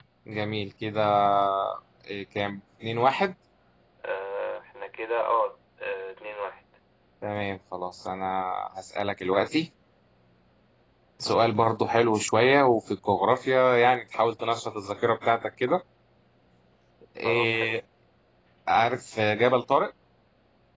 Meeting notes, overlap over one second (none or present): none